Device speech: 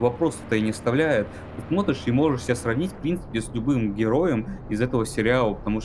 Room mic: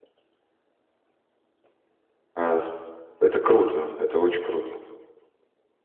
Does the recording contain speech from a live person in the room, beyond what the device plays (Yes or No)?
Yes